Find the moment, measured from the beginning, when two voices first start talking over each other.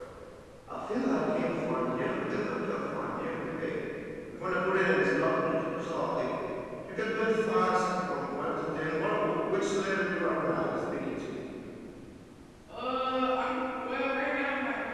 none

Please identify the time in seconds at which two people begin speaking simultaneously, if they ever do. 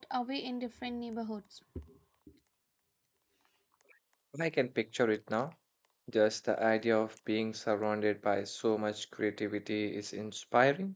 none

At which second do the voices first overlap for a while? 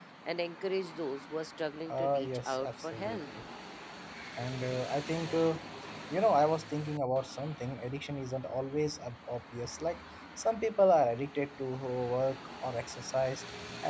2 s

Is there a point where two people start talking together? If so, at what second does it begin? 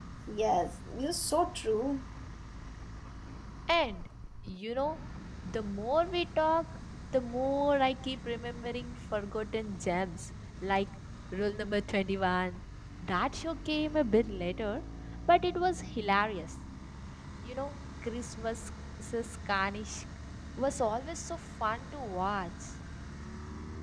none

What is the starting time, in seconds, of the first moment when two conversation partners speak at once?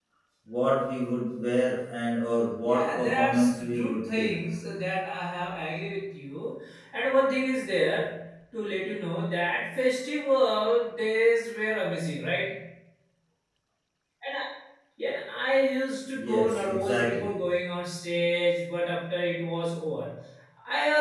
3 s

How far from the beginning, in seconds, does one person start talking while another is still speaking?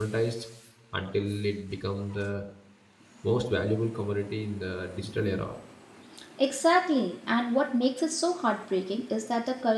none

